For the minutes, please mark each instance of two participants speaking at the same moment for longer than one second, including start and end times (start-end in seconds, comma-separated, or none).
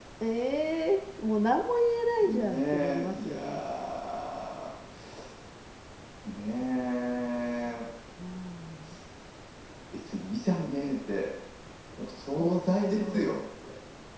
2.3-3.6